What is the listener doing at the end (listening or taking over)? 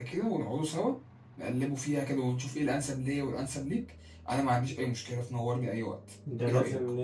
taking over